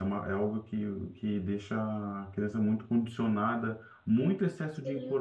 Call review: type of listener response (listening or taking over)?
listening